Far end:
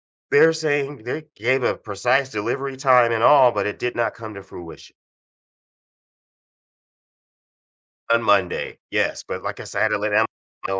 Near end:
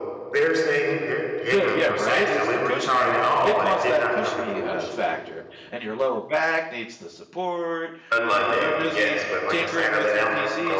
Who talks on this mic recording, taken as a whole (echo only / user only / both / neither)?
both